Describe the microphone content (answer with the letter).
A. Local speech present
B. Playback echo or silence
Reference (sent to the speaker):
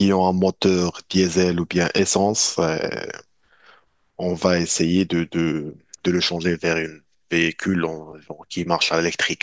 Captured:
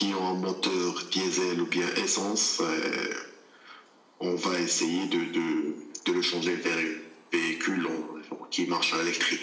B